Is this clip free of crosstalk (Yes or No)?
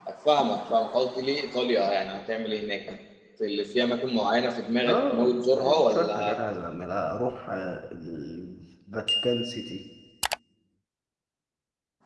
No